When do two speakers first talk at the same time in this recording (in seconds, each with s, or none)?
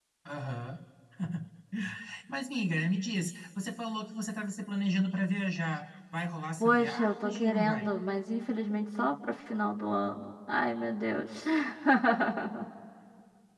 6.6 s